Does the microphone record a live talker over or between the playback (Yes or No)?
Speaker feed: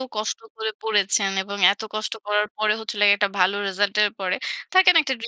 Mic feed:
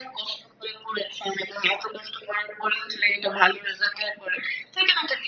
No